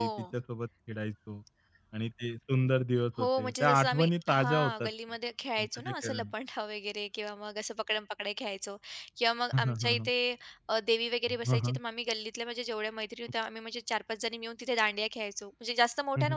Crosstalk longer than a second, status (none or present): present